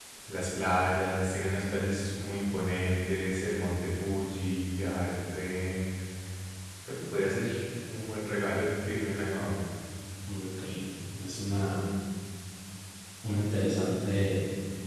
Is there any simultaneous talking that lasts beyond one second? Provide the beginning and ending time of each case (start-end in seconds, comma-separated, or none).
none